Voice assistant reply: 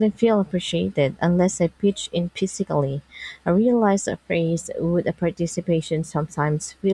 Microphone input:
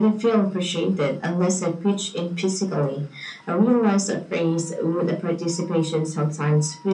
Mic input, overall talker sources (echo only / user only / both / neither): echo only